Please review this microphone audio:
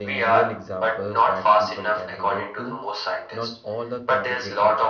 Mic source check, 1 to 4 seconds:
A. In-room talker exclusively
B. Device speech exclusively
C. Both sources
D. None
C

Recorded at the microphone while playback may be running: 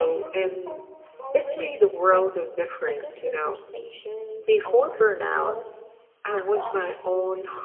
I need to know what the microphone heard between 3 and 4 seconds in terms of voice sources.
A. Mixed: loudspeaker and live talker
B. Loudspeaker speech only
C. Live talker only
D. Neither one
A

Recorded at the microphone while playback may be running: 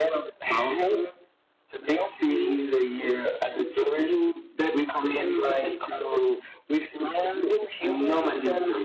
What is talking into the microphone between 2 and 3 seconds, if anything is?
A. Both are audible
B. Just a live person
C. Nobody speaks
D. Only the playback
D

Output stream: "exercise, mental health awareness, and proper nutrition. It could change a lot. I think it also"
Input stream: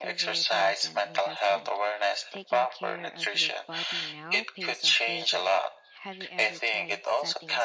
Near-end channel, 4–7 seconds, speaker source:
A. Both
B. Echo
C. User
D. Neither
A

